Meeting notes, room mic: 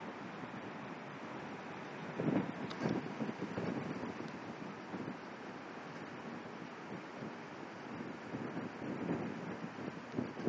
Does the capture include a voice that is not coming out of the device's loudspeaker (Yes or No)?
No